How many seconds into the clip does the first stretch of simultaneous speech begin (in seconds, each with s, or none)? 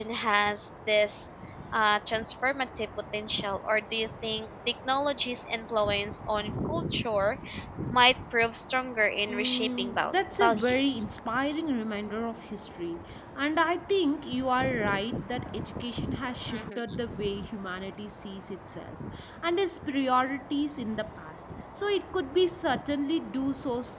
9.3 s